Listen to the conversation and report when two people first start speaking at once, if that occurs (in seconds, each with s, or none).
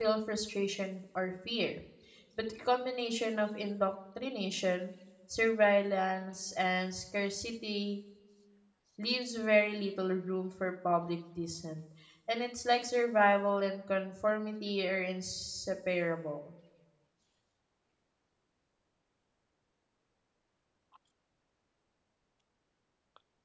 none